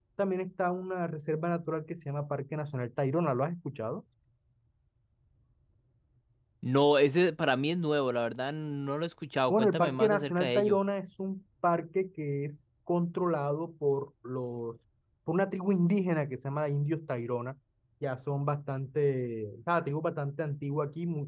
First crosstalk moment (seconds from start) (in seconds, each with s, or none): 9.5 s